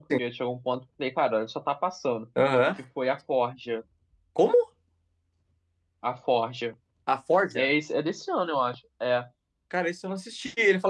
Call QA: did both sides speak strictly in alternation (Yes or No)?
Yes